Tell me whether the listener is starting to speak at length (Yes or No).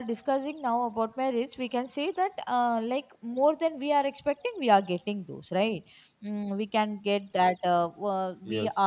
No